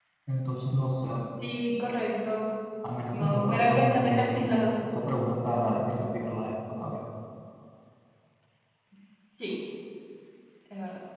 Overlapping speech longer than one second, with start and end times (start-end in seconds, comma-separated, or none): 3.1-4.8